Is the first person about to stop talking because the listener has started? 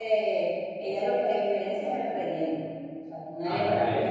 No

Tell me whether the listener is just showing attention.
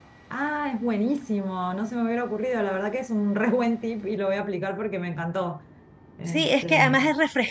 No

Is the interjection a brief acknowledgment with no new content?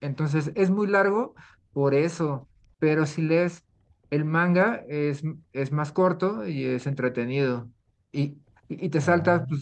Yes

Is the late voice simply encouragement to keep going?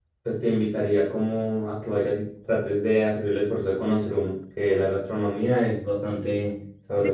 No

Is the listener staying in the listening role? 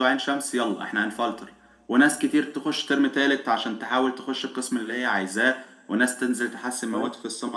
Yes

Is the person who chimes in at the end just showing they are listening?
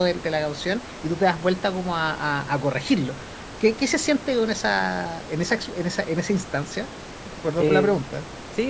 No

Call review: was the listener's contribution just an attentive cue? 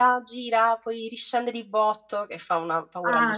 No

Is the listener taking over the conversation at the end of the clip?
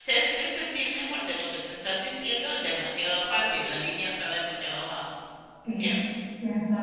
Yes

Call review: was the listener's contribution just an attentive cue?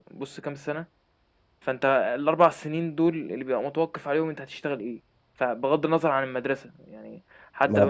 Yes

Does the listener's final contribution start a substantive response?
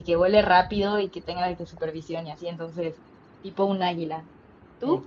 Yes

